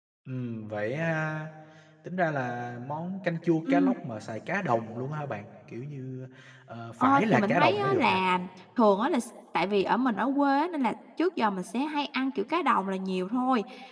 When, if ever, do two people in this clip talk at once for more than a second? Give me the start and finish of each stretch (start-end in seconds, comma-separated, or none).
7.0-8.2